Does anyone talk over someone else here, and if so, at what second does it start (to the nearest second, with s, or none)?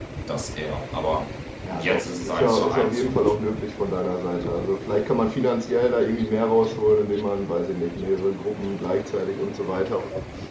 2 s